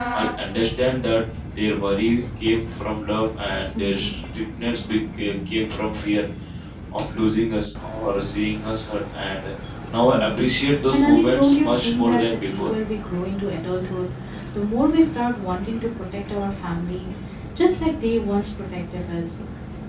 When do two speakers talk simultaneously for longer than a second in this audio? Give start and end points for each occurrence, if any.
10.9-12.7

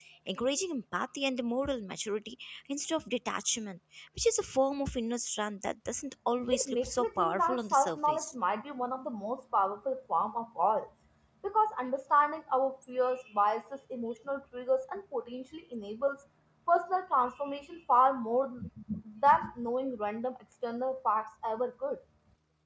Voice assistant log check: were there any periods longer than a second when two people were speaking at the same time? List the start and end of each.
6.5-8.3

